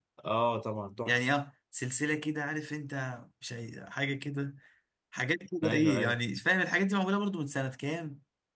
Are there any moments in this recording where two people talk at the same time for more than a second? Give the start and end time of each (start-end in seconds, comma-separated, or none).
none